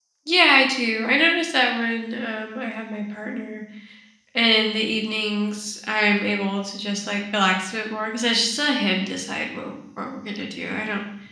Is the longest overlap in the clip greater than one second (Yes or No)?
No